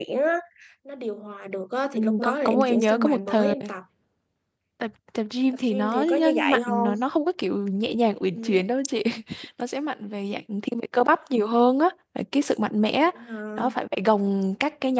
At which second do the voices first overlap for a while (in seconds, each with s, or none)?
1.9 s